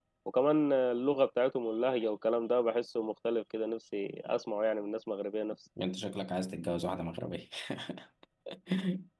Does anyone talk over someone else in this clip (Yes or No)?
No